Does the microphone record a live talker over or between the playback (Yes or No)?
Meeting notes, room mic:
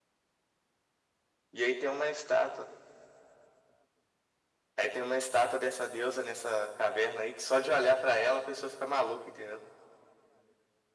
No